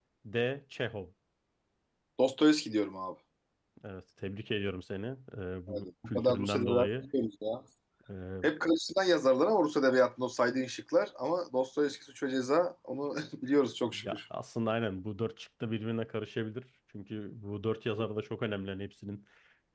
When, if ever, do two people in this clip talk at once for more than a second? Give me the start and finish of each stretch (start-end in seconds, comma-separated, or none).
5.7-6.9